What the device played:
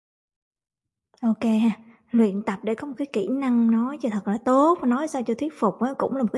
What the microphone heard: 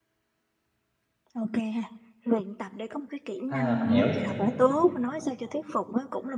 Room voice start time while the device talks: 3.5 s

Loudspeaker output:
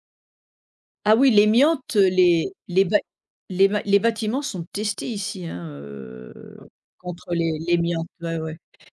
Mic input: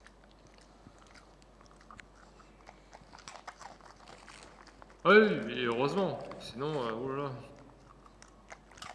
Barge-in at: 5.0 s

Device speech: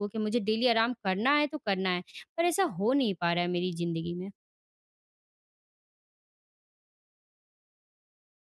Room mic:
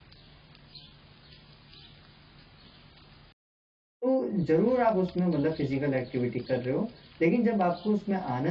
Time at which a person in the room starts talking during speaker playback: 4.0 s

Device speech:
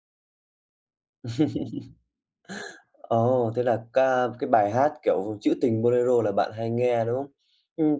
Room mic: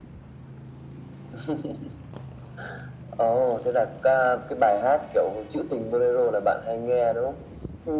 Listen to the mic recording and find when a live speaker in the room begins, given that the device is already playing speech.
none

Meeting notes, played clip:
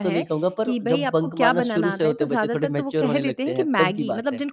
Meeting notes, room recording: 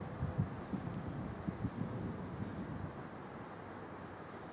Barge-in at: none

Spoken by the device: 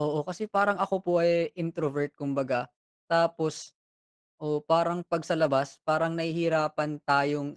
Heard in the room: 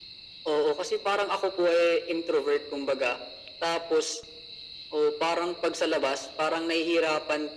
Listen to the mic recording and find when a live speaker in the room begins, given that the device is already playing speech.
none

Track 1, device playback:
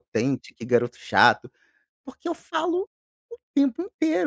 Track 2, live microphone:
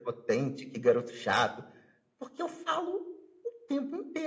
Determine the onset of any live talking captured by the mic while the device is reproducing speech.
none

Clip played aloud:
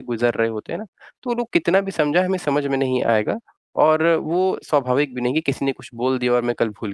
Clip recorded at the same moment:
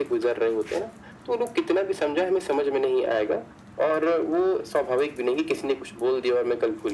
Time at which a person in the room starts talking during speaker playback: none

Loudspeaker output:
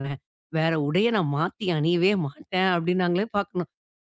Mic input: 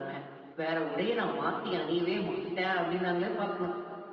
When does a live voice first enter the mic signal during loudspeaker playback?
none

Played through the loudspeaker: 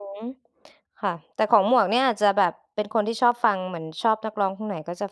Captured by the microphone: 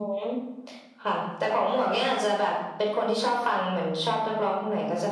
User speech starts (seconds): none

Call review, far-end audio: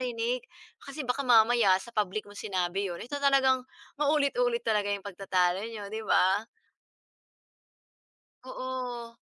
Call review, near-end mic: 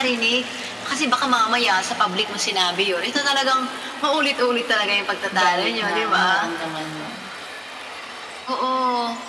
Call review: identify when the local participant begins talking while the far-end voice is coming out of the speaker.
5.3 s

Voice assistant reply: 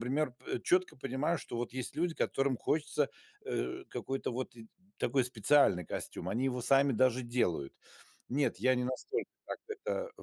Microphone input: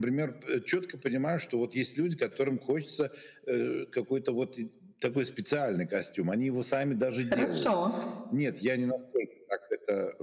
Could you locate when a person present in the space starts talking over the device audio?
7.3 s

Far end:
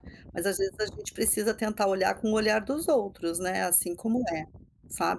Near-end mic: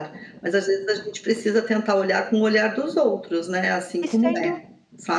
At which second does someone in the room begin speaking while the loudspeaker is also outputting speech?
4.0 s

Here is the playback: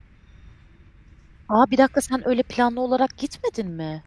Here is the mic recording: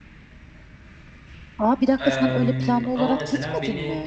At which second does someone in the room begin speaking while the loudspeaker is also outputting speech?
2.0 s

